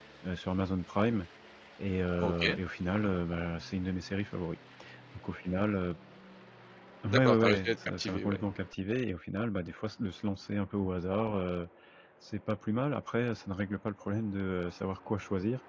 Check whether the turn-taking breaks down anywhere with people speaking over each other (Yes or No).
Yes